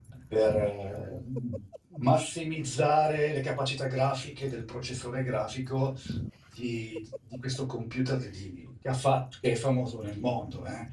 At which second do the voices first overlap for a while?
none

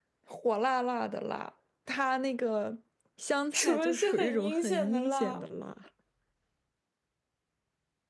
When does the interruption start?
3.5 s

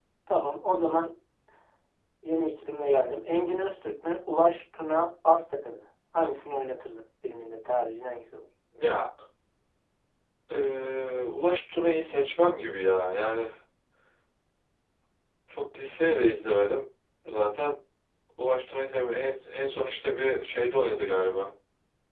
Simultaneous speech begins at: none

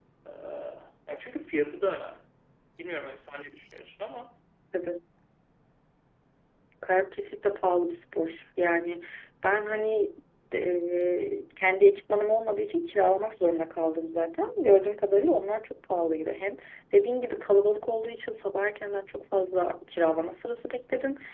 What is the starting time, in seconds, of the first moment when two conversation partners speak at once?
none

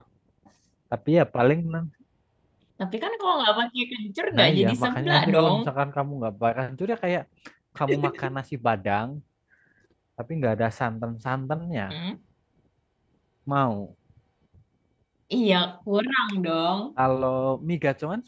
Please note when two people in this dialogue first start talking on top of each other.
4.3 s

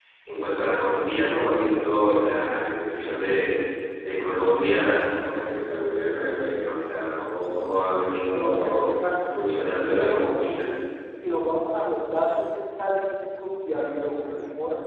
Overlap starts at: 8.3 s

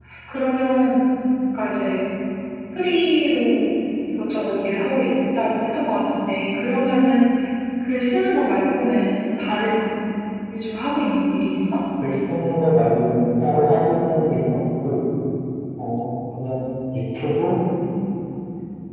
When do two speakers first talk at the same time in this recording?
none

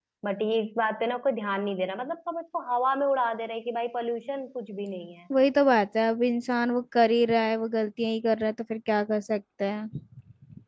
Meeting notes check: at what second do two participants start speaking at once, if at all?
none

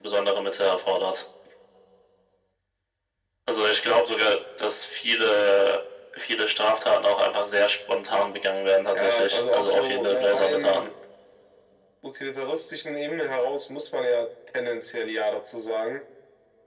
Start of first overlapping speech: 8.9 s

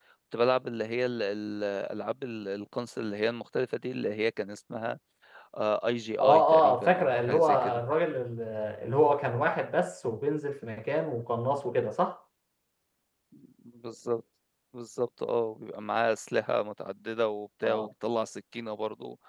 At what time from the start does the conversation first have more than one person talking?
6.2 s

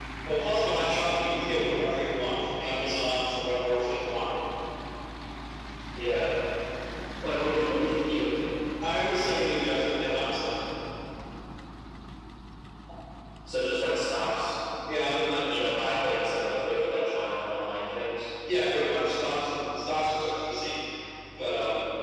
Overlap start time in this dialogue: none

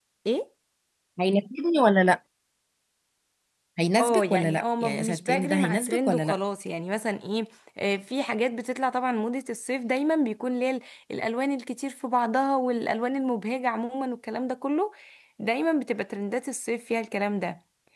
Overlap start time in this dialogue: 4.0 s

